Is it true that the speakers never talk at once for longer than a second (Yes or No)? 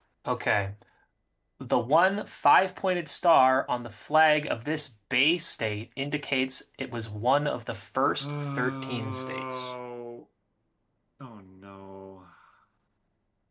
No